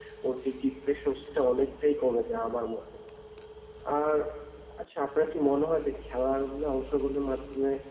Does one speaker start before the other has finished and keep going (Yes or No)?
No